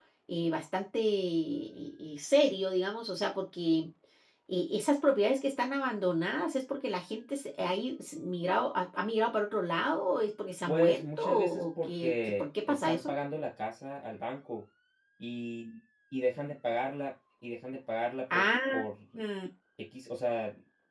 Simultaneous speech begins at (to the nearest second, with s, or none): 11 s